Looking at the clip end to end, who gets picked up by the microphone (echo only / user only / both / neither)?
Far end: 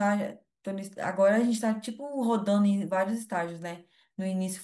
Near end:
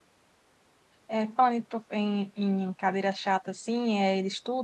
user only